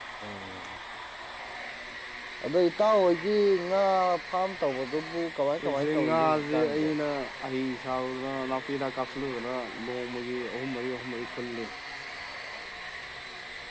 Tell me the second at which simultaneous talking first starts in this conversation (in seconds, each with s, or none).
5.6 s